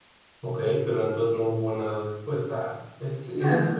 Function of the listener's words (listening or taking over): listening